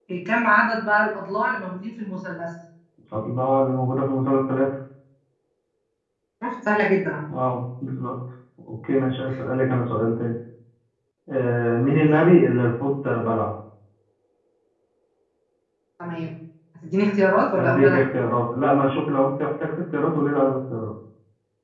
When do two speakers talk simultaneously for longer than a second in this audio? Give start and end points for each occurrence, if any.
none

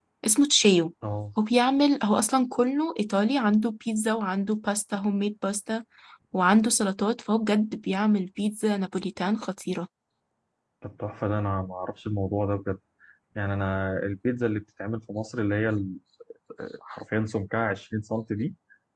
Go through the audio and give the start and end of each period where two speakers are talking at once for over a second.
none

